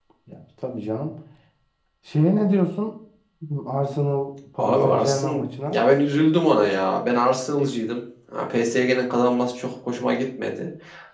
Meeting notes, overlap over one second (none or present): present